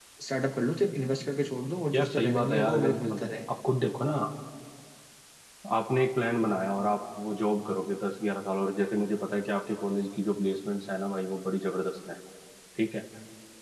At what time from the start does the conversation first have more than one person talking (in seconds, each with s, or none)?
1.9 s